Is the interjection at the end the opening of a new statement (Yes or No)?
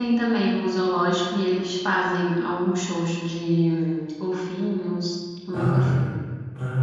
Yes